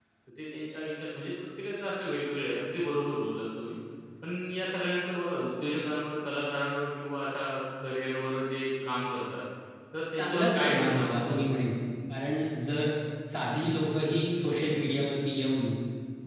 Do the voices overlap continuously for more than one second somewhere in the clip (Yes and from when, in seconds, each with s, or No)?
Yes, from 10.2 s